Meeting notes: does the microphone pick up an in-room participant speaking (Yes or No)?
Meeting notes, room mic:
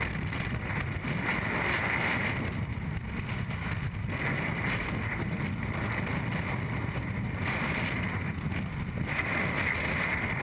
No